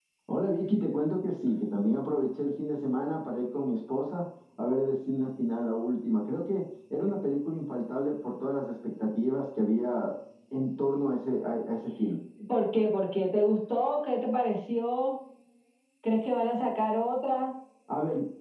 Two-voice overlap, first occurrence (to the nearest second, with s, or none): none